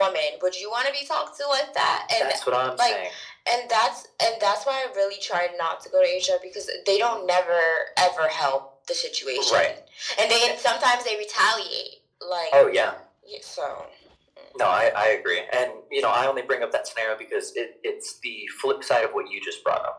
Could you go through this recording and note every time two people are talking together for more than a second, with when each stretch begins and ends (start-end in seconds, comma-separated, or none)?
none